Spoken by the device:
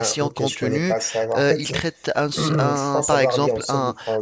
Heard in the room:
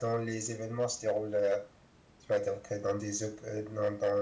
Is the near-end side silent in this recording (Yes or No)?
No